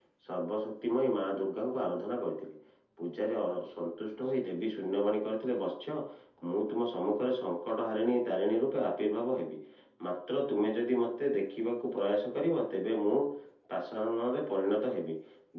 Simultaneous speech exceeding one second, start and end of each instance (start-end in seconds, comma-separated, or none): none